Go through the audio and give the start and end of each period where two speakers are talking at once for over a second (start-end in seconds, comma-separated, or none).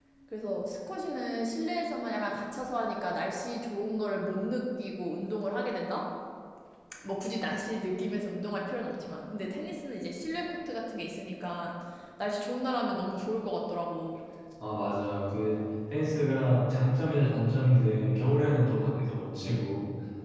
none